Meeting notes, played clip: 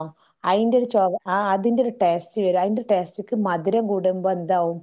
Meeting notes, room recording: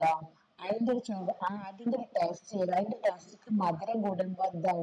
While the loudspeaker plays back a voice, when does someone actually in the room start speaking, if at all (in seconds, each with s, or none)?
none